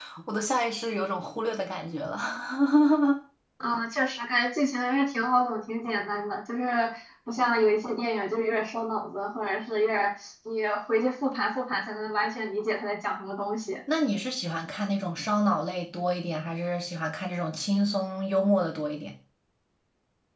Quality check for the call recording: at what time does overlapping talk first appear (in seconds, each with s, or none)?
none